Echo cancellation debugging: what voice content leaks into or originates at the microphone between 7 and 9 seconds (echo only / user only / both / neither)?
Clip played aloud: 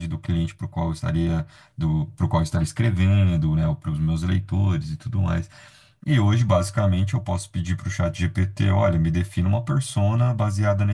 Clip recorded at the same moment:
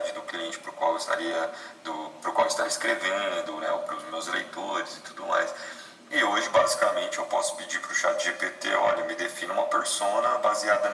echo only